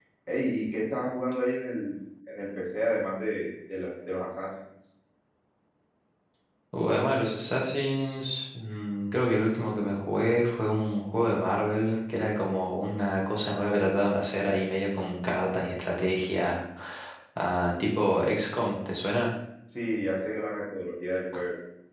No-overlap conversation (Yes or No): Yes